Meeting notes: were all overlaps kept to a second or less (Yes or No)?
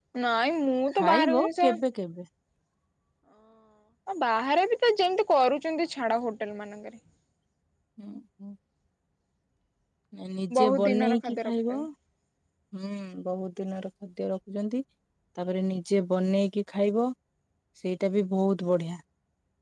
No